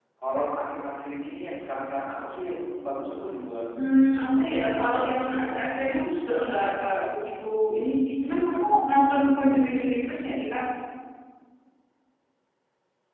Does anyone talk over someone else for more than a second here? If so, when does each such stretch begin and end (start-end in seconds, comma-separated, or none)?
4.4-5.8